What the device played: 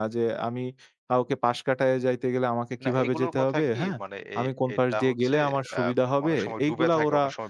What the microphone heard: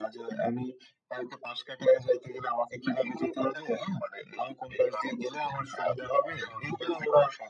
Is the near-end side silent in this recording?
Yes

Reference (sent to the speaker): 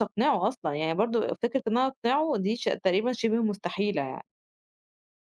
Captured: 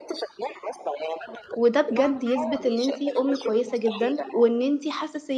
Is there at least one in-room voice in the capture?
Yes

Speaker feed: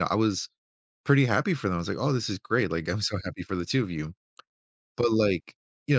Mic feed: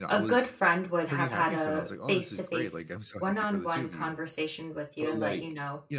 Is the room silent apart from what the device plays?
No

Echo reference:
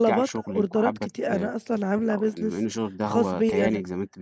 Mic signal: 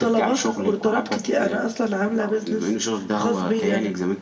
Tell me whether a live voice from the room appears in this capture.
No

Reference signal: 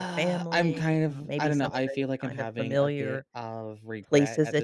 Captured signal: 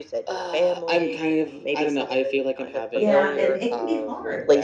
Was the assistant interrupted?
Yes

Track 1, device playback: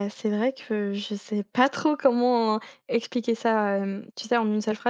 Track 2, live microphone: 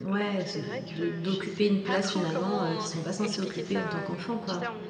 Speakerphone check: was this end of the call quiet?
No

